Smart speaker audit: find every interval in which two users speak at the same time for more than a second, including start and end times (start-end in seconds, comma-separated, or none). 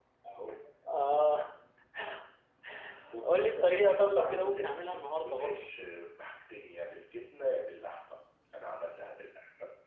3.2-5.6